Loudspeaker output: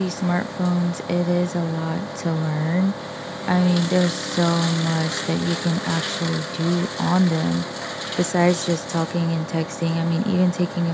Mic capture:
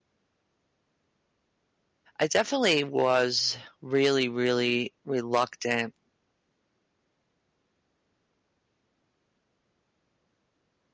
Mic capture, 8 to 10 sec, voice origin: neither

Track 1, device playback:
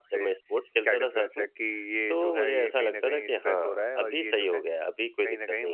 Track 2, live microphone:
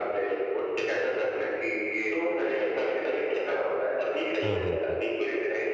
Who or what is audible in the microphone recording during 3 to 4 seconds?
echo only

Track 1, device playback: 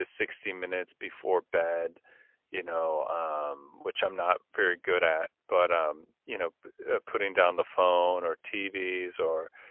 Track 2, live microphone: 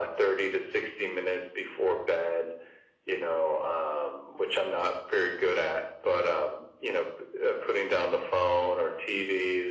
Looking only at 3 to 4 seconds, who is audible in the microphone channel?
echo only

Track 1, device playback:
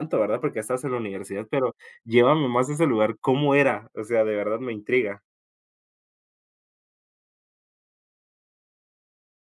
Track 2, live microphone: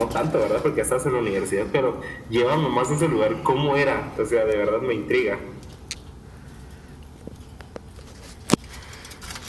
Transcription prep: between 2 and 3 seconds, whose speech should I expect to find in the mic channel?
echo only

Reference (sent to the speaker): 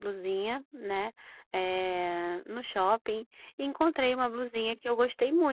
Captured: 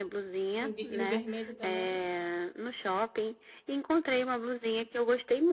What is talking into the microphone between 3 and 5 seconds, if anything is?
echo only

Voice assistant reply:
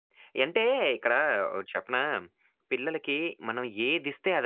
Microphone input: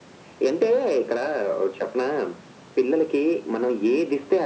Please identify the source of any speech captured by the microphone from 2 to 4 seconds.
echo only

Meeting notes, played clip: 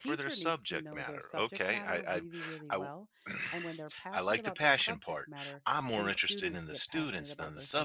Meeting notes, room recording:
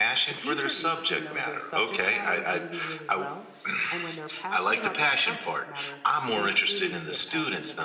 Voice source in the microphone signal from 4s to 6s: echo only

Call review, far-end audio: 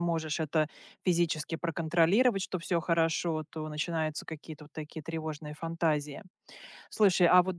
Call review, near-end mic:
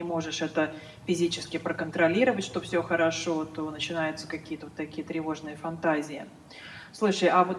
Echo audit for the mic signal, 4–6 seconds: echo only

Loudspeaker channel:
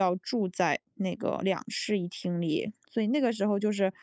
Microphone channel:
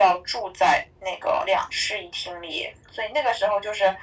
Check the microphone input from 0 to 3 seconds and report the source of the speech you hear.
echo only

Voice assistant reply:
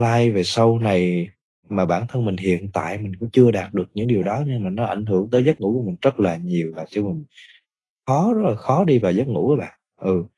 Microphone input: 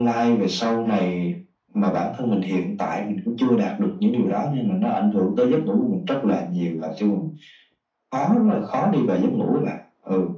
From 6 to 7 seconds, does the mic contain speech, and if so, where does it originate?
echo only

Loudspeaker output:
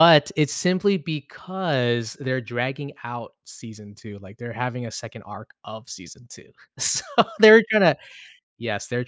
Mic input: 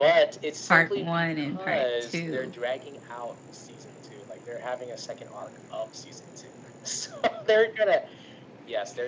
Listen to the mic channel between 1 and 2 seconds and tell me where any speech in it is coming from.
both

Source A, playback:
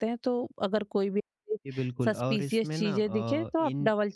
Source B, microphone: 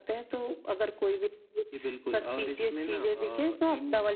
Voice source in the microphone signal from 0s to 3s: echo only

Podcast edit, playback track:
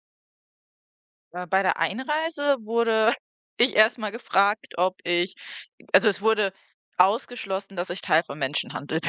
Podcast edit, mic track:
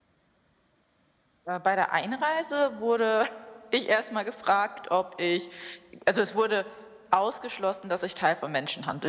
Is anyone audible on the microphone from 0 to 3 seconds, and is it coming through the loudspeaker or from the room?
echo only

